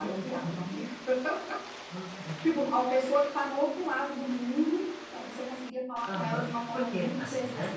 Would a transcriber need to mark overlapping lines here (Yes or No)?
Yes